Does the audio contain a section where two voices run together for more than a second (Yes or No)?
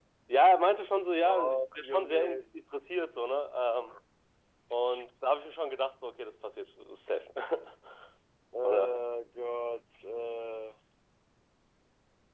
Yes